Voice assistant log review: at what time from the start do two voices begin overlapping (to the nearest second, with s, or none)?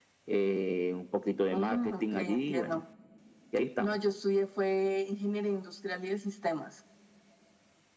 2 s